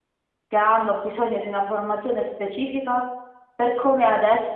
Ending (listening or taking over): listening